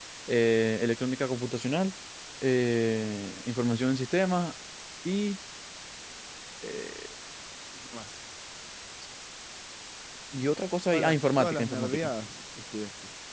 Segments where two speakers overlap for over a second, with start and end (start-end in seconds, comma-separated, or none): 10.9-12.1